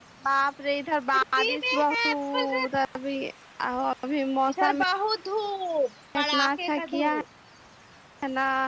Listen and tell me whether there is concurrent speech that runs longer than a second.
Yes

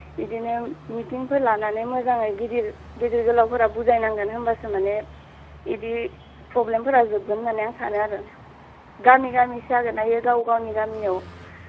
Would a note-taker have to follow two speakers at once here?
No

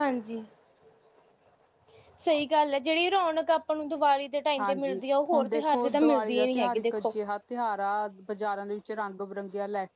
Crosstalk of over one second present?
Yes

